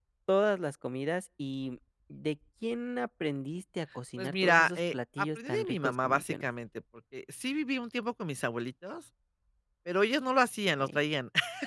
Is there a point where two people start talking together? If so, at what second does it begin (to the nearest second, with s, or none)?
4 s